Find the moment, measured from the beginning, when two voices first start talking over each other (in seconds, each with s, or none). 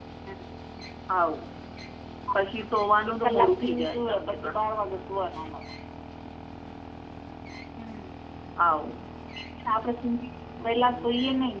3.2 s